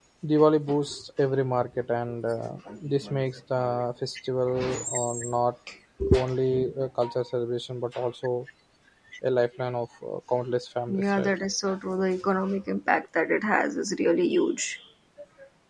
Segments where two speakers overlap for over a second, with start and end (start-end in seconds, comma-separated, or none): none